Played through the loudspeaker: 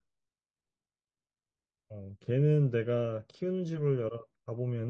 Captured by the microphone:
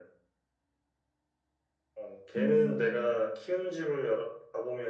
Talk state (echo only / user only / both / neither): both